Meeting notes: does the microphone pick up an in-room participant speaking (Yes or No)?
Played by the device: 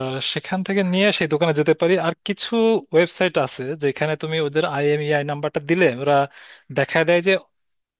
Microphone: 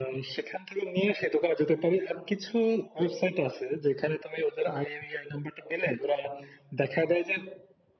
No